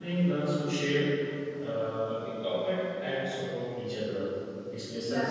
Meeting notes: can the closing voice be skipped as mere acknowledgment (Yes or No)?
No